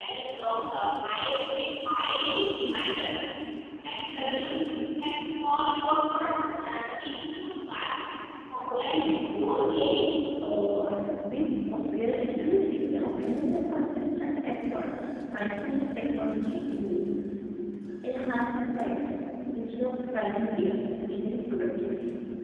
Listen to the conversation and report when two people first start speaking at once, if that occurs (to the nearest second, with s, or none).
9 s